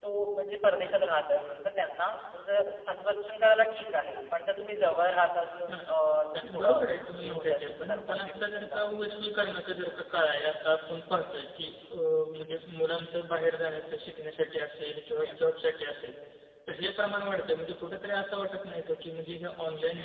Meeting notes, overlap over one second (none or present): present